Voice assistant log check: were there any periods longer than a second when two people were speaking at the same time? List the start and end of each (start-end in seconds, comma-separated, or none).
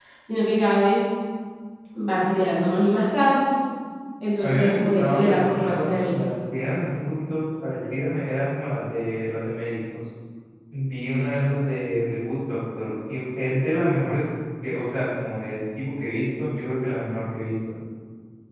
4.4-6.3